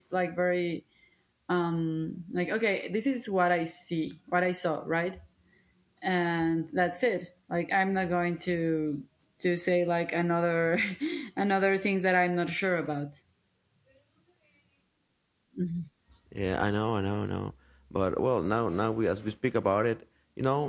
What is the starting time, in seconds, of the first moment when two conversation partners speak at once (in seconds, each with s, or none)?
none